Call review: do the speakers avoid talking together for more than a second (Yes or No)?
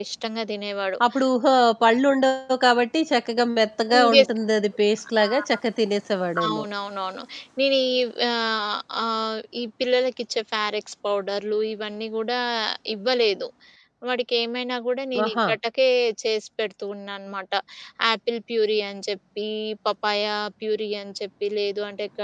Yes